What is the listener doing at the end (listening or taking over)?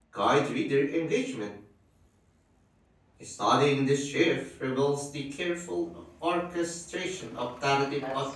taking over